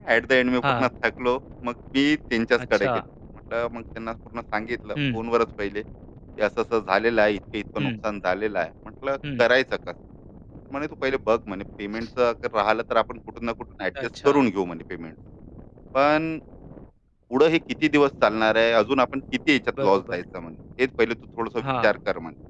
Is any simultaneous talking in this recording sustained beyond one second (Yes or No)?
No